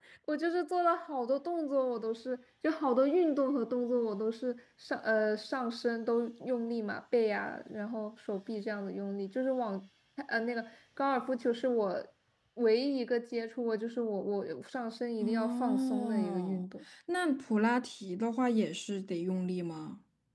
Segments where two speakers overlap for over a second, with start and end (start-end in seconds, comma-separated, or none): 15.2-16.6